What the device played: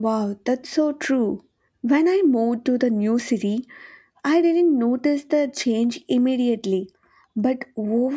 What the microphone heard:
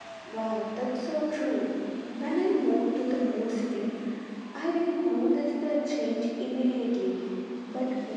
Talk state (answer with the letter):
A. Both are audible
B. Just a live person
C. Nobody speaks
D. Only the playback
D